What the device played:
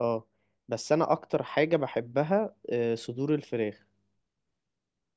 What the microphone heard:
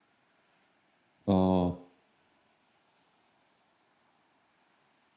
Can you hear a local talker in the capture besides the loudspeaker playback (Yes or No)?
Yes